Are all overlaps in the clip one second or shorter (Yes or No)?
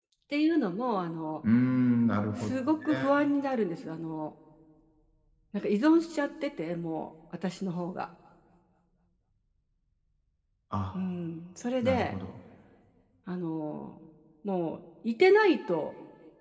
Yes